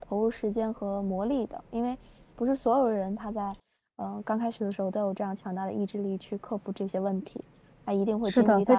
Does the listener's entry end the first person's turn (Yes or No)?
Yes